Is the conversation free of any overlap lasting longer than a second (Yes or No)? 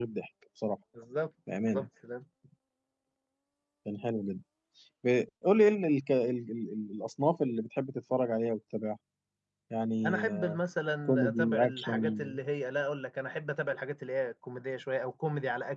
No